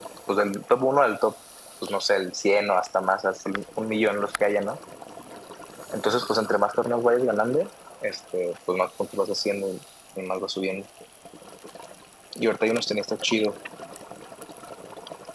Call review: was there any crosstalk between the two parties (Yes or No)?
No